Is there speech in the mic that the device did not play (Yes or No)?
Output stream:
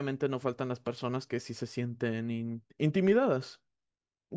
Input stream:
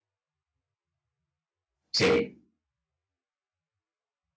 Yes